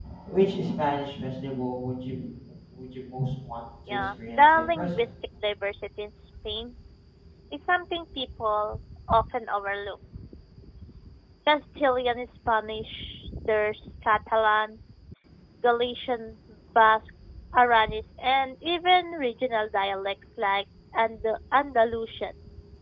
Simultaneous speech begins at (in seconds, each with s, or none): 3.9 s